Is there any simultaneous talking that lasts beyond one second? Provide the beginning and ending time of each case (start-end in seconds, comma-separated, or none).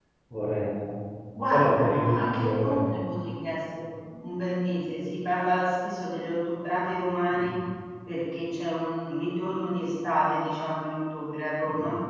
1.5-2.8